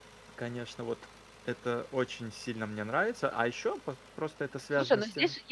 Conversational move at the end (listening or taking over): taking over